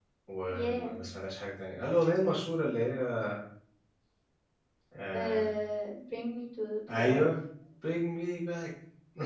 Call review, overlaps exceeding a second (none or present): none